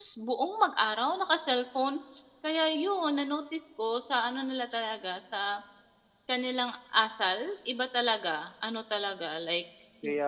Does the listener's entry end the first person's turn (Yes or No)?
No